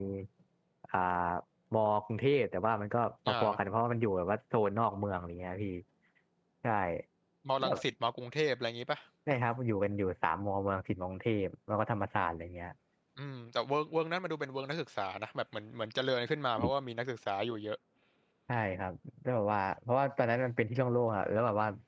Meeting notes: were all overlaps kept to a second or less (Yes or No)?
Yes